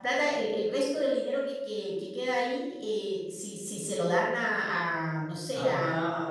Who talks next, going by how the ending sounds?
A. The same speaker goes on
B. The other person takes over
B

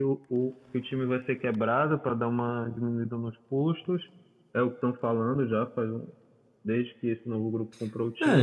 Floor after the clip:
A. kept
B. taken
B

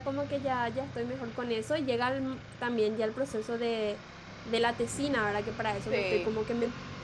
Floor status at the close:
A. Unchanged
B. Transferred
A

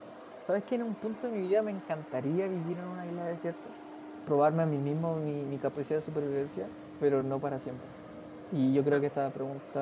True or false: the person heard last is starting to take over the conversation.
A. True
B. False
B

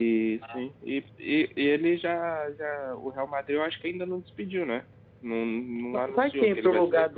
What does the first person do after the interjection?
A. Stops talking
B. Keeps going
A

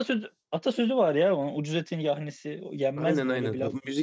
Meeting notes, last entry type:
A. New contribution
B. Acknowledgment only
A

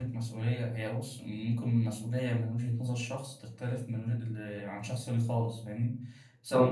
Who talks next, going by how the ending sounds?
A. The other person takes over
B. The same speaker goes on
B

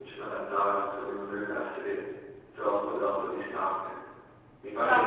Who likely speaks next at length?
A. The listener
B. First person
B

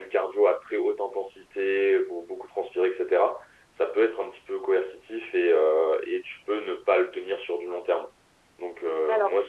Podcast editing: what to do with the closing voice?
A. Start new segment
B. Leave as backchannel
B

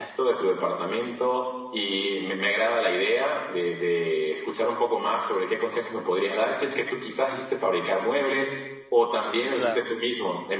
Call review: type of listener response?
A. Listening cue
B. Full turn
A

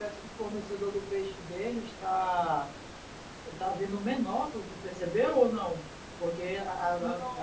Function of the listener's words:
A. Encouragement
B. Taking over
B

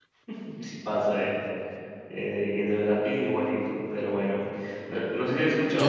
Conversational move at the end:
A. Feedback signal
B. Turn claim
A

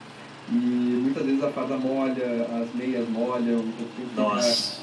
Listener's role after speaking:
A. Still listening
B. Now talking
A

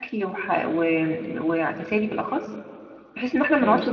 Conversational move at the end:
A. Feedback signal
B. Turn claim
A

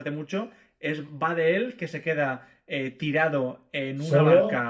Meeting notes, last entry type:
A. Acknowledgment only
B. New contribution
A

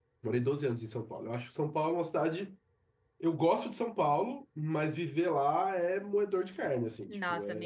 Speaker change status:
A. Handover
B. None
A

